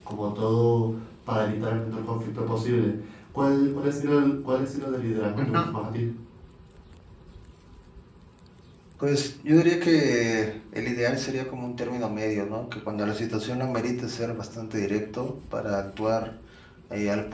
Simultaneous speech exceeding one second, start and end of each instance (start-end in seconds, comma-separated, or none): none